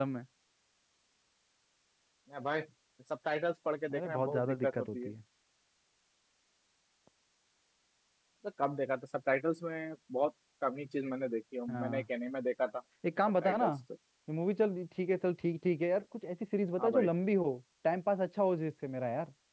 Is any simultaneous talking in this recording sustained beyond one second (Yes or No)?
Yes